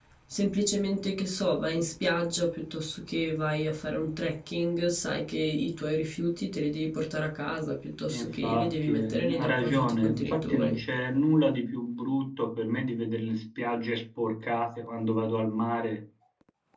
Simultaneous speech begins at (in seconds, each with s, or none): 8.1 s